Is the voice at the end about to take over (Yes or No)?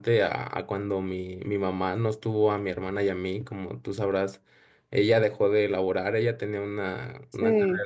No